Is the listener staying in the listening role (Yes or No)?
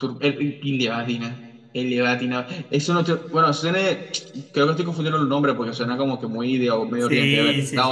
No